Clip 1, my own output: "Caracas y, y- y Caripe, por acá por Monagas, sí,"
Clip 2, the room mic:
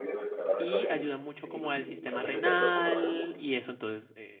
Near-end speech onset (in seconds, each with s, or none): 0.6 s